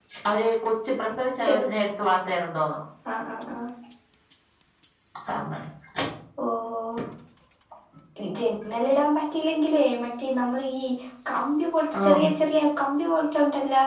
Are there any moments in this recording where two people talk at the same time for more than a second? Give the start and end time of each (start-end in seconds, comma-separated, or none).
none